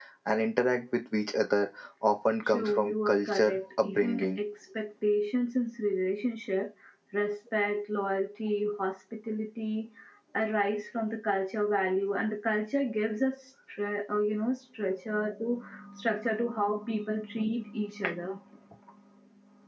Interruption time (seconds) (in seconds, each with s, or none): 2.4 s